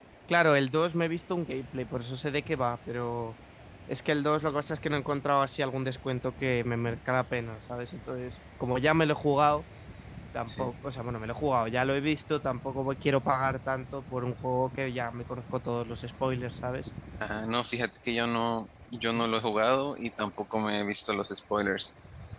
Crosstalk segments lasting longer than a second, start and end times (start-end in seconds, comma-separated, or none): none